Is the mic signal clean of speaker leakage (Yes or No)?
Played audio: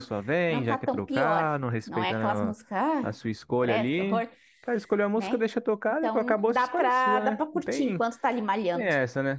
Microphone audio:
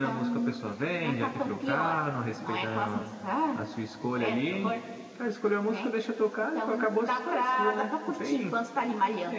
No